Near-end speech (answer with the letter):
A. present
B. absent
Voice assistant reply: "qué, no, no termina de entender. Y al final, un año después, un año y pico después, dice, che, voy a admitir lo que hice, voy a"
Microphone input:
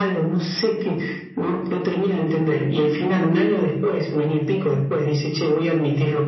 B